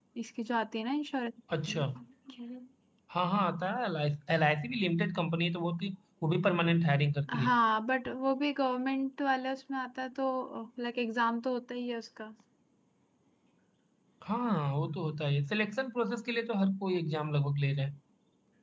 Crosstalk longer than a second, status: none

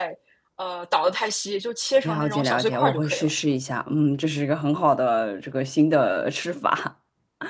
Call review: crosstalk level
present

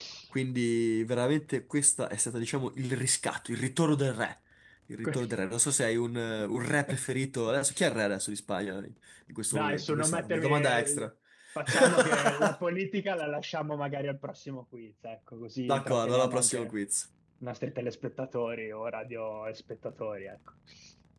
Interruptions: present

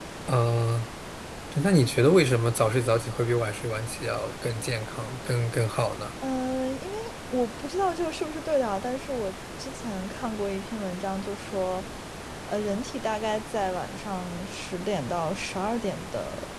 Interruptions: none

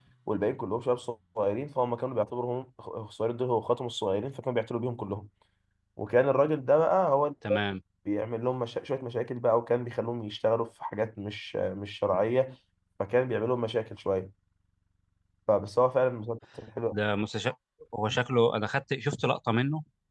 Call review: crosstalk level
none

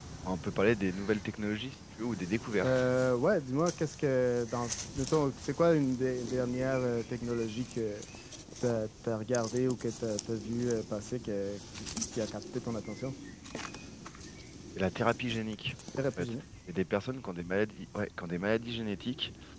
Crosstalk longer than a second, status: none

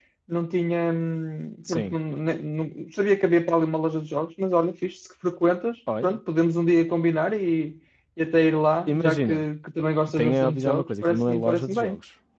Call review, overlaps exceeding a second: present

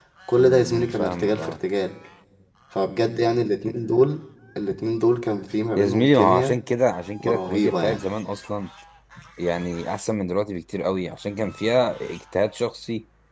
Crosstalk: present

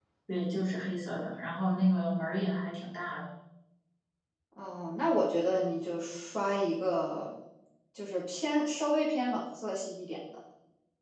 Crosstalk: none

